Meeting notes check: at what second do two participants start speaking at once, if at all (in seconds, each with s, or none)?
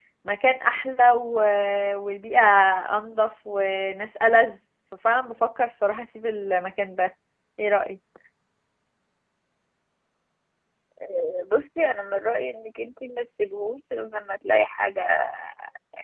none